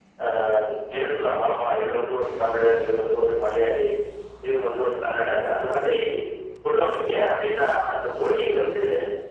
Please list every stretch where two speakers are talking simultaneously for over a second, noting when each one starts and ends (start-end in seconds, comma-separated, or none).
none